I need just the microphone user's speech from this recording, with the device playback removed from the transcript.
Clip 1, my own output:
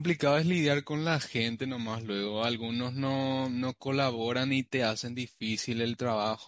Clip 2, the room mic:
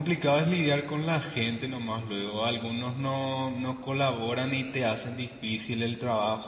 none

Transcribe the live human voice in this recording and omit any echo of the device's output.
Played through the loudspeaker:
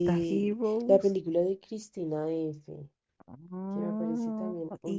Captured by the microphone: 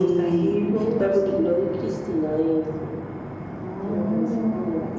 none

